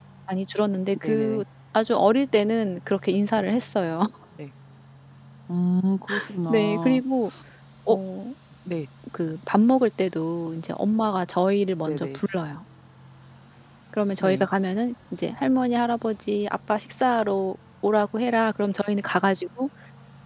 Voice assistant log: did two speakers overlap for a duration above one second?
No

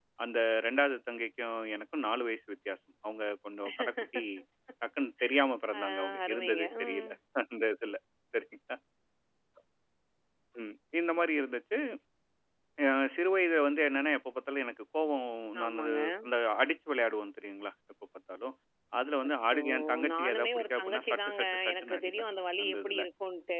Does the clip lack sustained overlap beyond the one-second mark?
No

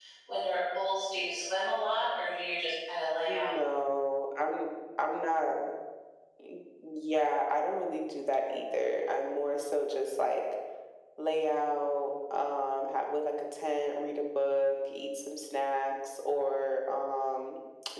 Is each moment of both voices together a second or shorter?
Yes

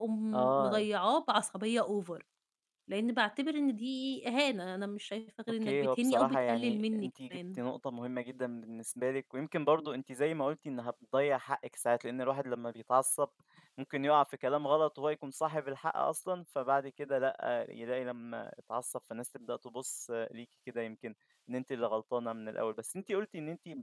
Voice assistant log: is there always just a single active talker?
No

